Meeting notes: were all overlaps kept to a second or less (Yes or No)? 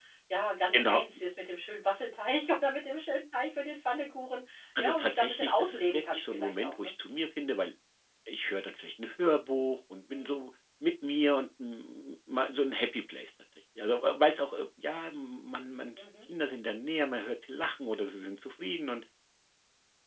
No